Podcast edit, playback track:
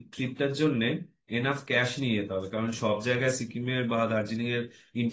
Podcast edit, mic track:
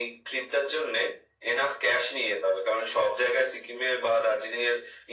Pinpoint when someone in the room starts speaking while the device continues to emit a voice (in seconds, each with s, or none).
none